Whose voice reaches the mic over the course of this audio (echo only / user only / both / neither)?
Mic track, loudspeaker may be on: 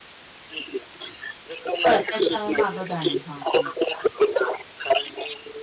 both